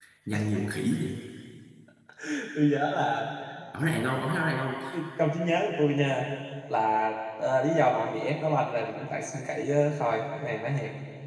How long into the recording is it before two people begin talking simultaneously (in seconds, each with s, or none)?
none